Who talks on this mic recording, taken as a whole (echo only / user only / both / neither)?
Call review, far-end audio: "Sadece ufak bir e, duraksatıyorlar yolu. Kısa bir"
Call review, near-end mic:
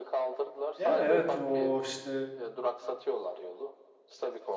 both